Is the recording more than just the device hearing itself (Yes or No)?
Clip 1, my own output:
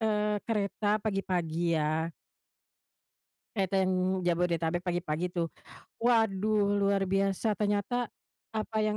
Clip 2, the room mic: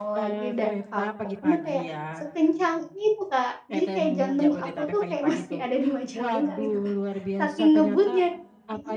Yes